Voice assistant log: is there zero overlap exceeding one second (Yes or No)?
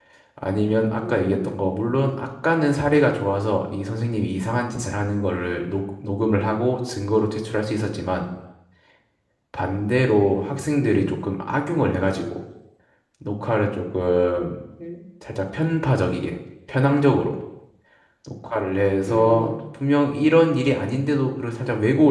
Yes